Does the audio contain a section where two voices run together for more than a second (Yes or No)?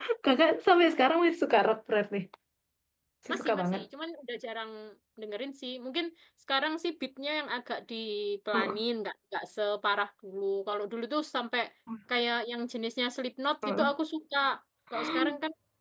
No